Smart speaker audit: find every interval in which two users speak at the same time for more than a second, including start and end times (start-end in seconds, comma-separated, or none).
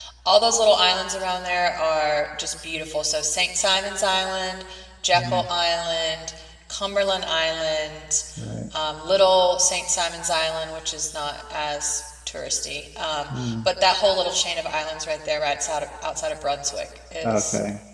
none